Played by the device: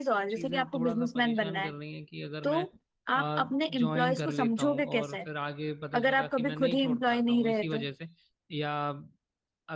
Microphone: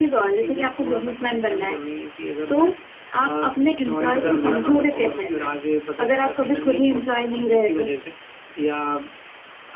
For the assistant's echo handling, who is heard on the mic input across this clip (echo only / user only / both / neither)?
both